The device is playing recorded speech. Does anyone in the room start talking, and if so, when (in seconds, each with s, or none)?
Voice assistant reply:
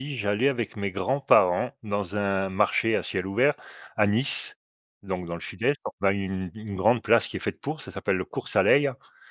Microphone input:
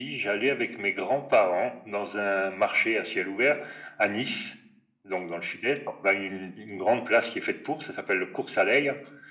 none